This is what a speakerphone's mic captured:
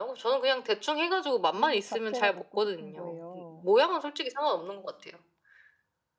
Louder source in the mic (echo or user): echo